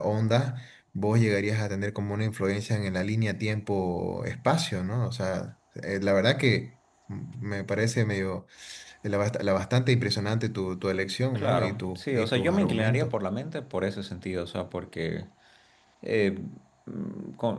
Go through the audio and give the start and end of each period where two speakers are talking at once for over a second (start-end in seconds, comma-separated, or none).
11.3-13.1